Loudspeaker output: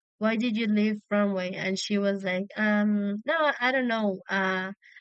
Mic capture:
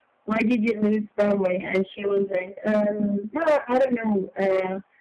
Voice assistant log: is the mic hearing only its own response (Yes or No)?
Yes